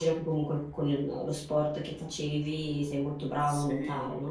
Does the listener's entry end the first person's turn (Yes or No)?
Yes